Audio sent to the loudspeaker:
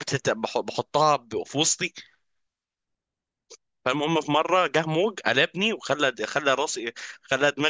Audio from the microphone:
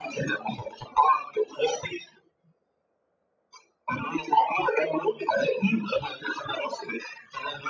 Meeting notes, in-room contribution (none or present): none